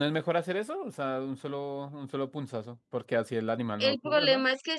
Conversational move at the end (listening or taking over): taking over